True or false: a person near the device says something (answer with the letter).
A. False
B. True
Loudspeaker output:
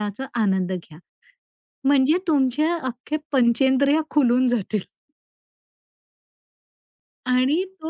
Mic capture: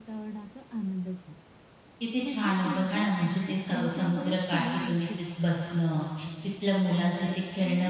B